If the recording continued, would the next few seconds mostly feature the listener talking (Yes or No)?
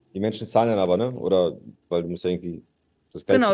Yes